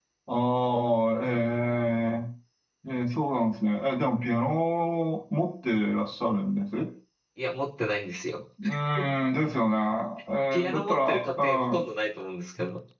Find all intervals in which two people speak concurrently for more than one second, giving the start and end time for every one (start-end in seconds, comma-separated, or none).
10.5-11.8